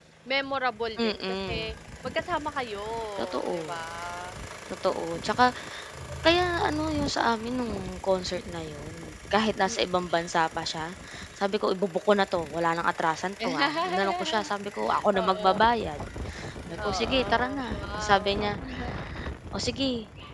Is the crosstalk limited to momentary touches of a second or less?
No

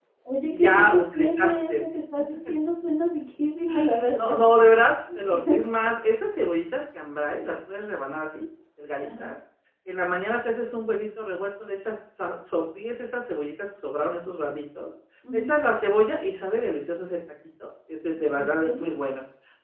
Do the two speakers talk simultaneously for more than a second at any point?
Yes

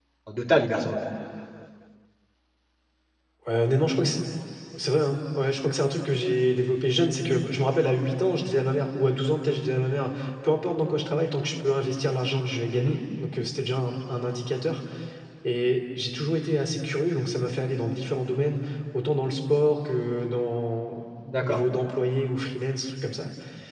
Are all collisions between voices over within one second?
Yes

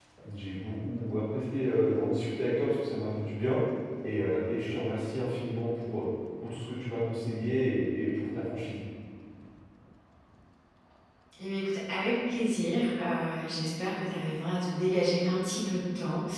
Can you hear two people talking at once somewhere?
No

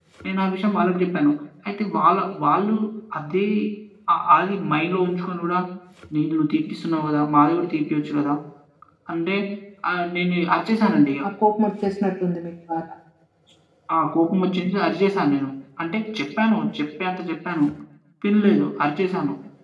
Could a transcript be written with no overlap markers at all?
Yes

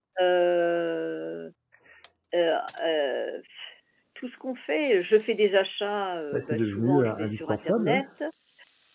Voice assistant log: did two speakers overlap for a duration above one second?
Yes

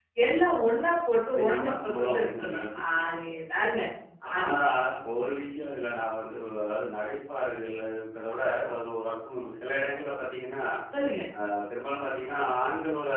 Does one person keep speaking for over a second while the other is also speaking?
Yes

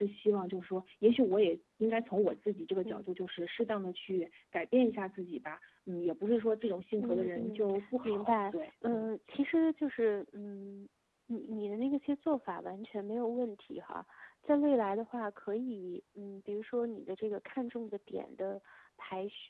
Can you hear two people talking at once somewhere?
Yes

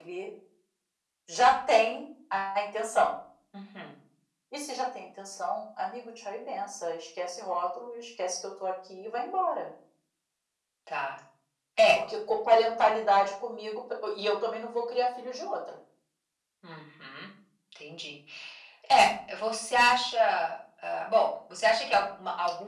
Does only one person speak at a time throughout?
Yes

